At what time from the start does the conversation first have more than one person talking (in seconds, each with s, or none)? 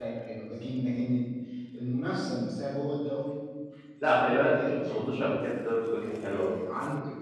4.0 s